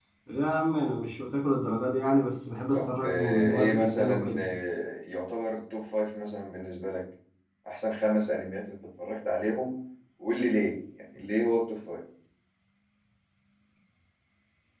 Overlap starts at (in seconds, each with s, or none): 2.7 s